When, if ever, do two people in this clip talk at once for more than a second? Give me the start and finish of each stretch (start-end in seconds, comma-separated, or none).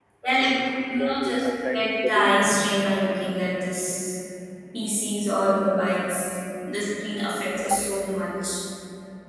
1.0-2.5